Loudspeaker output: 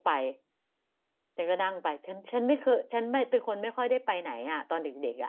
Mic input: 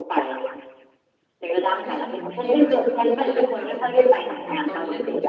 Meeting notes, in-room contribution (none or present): present